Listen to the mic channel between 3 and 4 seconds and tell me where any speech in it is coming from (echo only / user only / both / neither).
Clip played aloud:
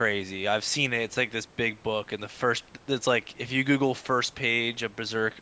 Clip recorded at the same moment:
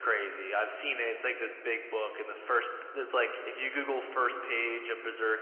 echo only